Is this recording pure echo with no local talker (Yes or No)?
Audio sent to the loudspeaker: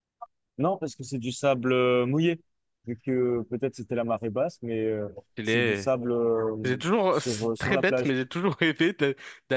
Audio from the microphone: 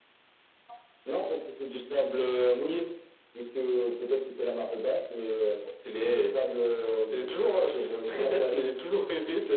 Yes